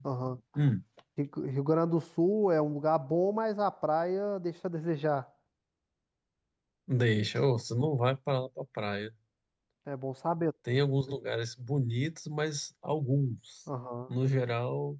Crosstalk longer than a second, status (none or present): none